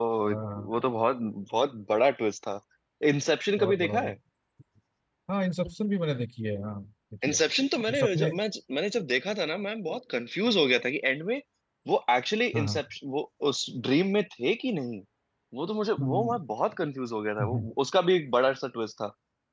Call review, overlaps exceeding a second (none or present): none